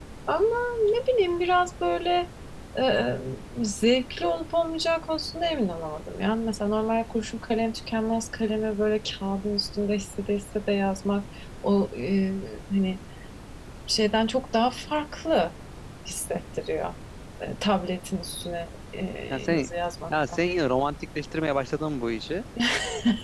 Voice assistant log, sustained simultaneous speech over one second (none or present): none